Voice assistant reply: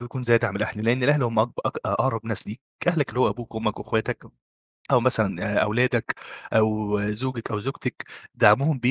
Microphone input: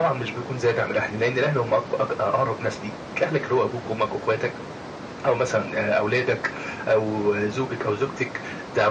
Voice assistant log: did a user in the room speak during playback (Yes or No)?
No